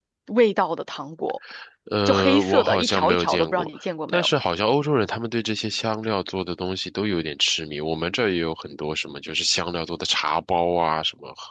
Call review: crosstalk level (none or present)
present